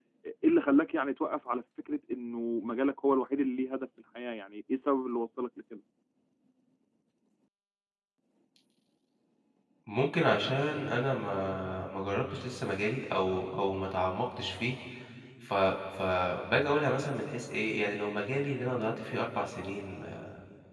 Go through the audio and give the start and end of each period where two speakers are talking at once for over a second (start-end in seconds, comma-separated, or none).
none